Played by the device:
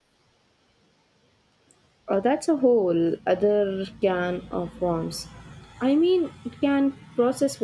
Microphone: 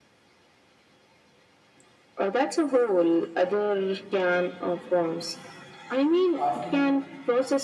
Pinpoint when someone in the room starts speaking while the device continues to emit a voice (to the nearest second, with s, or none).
6 s